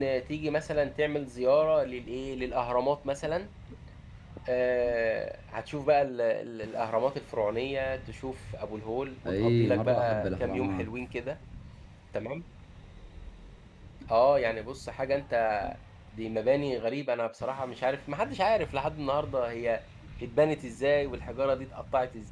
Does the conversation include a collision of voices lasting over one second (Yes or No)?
Yes